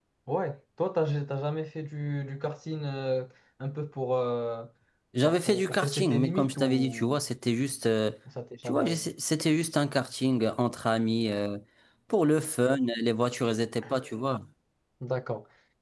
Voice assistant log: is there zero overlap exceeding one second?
No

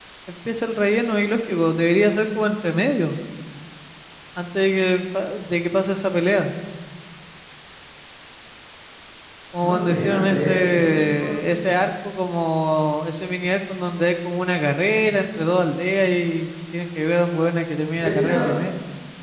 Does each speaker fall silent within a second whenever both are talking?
No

